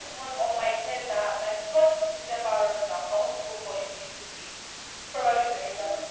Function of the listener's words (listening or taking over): listening